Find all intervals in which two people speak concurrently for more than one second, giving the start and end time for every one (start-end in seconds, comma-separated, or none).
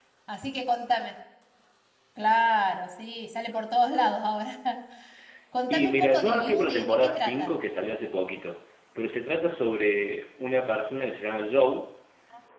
5.7-7.5